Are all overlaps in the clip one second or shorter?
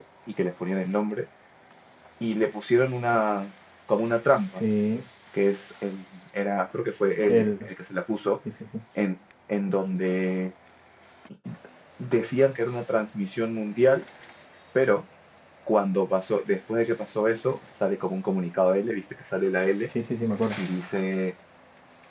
Yes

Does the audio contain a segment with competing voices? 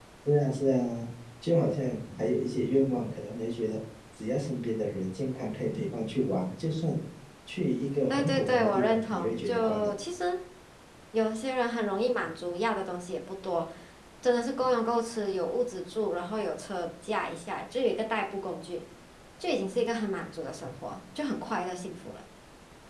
Yes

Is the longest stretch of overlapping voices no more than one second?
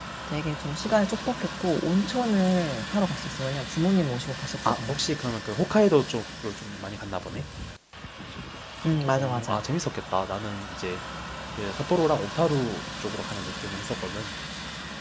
Yes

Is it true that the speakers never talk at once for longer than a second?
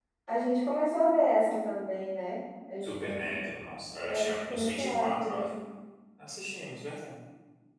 No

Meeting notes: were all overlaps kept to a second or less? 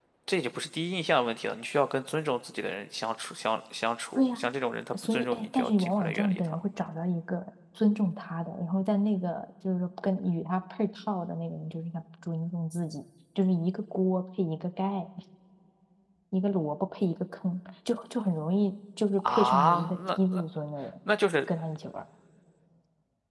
No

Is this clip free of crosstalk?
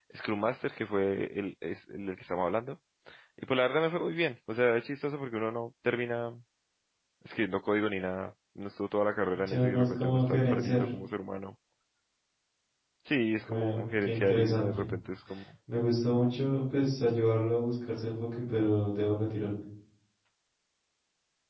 No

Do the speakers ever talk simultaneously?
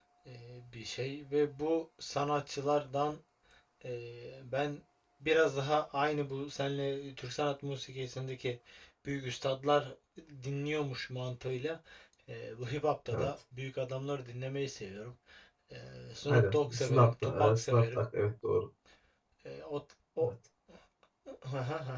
Yes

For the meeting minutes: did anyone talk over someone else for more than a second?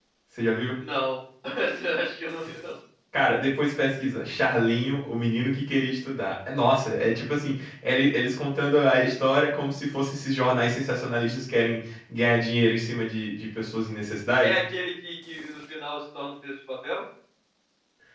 No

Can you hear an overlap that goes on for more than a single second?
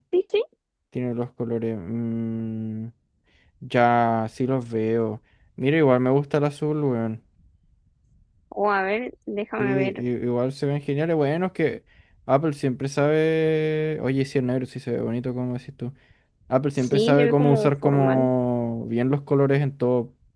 Yes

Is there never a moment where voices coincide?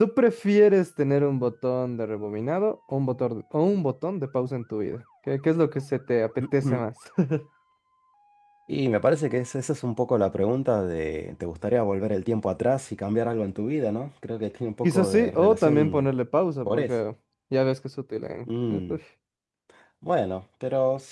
No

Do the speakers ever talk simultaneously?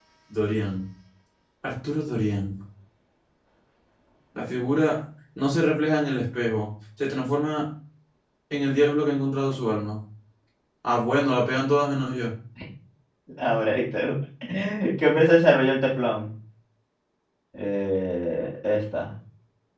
No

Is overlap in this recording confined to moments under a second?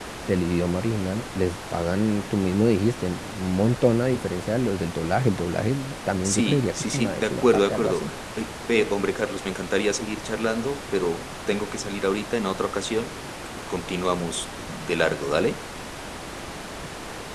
No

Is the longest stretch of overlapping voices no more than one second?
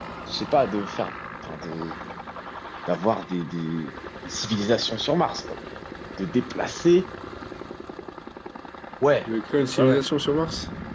Yes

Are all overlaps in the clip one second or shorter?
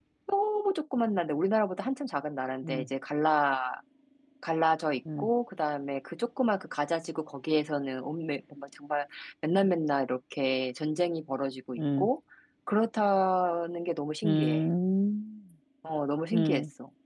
Yes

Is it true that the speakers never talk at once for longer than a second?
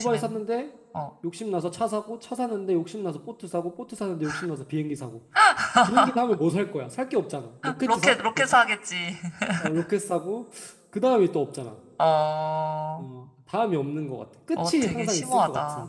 No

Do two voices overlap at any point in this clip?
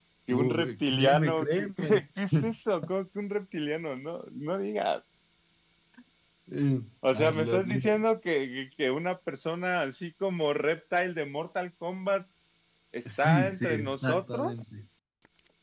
Yes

